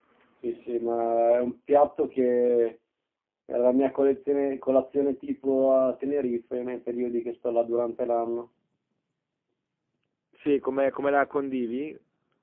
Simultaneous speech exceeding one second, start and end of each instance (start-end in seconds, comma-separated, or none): none